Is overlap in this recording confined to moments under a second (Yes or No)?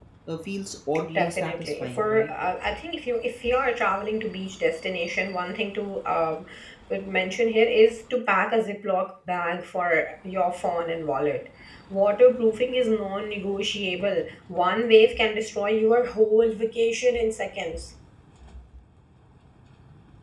No